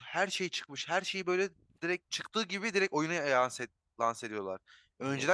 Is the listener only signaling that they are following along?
Yes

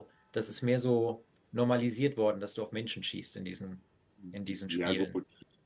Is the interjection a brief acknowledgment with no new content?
No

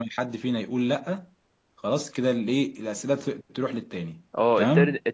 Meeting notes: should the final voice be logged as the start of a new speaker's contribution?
Yes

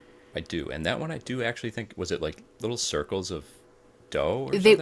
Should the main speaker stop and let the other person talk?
Yes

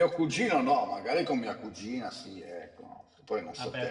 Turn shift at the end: Yes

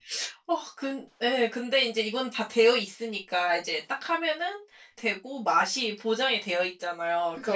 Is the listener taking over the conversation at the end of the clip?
No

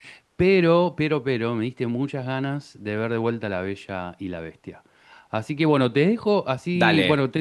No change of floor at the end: Yes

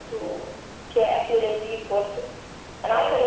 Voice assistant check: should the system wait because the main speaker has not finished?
Yes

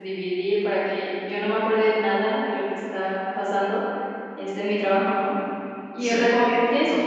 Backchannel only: Yes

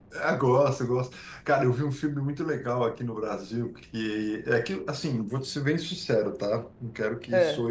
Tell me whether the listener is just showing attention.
Yes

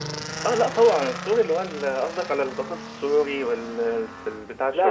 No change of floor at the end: No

